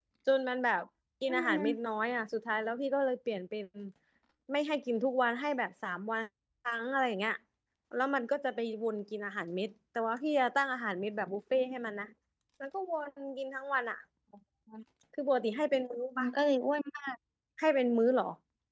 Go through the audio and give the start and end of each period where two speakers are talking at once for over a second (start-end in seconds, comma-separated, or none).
none